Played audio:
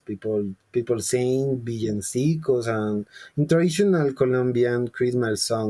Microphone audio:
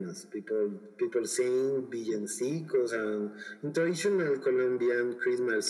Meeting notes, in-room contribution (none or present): none